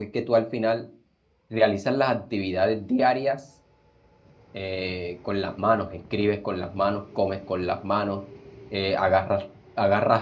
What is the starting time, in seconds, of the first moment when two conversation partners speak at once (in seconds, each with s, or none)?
none